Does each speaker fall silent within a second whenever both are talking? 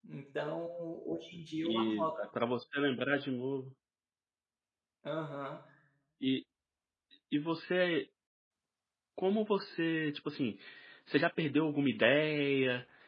Yes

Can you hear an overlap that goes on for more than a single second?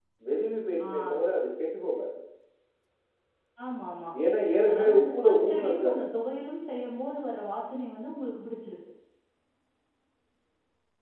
Yes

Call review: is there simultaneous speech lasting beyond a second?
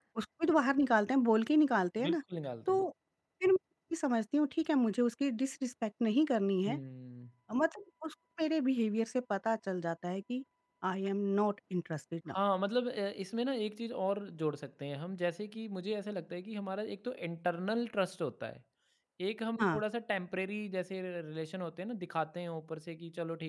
No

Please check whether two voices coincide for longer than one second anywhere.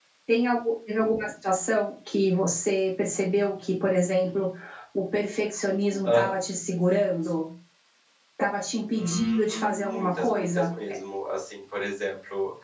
Yes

